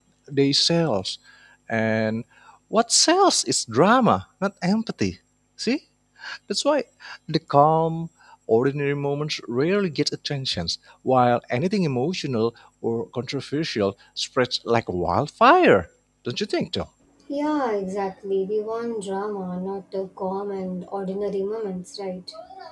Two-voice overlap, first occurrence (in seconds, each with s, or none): none